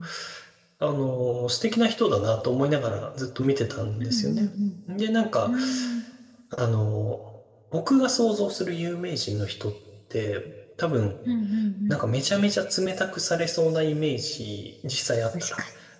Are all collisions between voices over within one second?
Yes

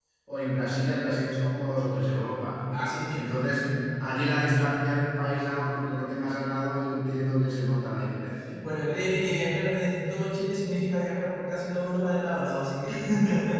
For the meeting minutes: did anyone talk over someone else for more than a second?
No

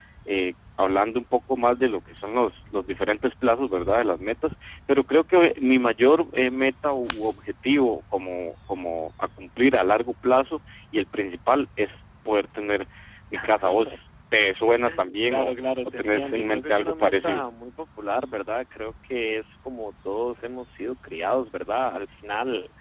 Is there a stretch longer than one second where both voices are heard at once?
Yes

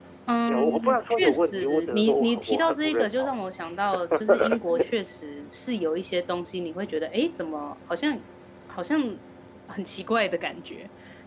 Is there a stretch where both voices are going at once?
Yes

